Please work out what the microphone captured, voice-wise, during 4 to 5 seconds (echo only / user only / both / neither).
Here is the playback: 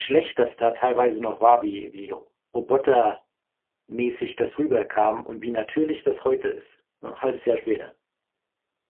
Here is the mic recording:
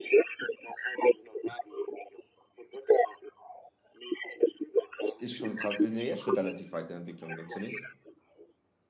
echo only